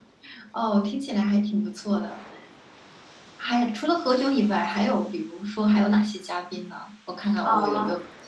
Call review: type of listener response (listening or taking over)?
taking over